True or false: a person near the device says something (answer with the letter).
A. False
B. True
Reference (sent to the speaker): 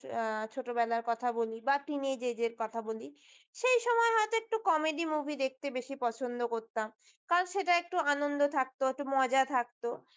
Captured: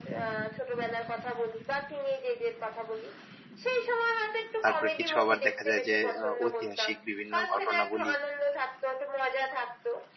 B